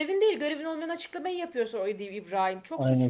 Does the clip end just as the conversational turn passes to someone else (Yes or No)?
Yes